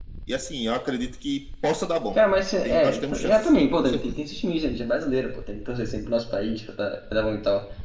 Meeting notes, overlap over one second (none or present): present